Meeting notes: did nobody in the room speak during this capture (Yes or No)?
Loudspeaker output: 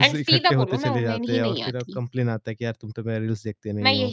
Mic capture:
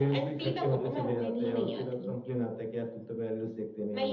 Yes